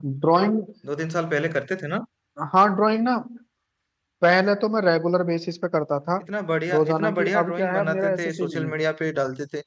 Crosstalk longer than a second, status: present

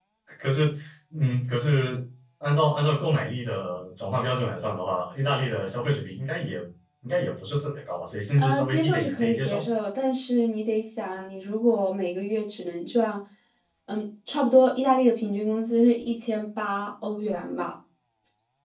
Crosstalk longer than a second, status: present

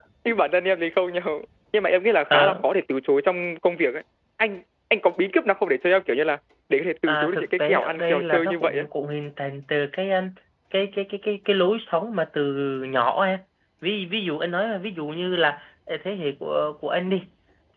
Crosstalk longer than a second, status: present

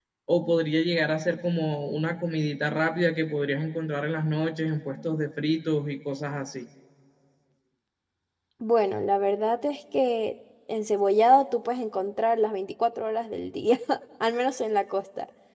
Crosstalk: none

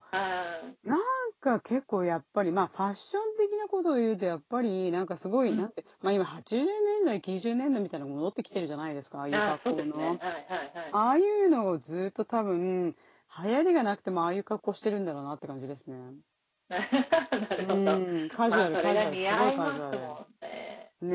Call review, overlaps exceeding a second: present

